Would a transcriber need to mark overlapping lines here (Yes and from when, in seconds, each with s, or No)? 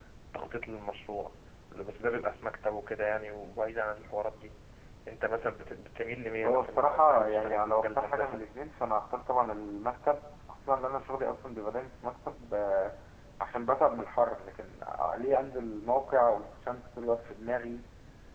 Yes, from 6.4 s